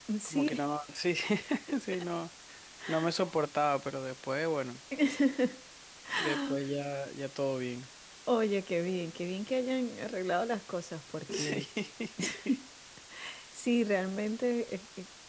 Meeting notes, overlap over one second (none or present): none